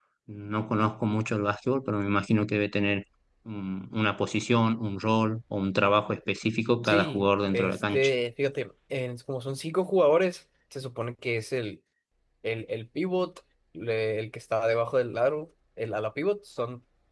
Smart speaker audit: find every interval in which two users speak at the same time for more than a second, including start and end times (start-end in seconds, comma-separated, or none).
6.8-8.1